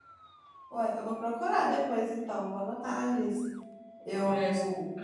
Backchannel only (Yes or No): No